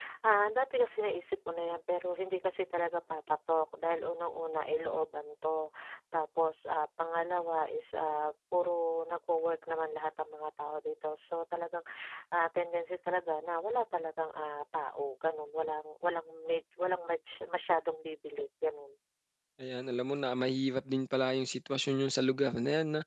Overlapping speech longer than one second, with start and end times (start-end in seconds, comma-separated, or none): none